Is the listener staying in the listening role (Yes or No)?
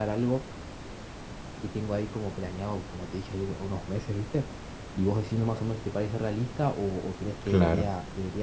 Yes